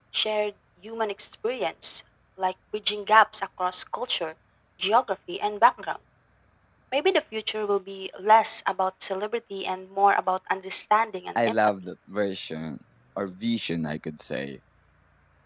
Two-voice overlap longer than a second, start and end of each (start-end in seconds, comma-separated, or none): none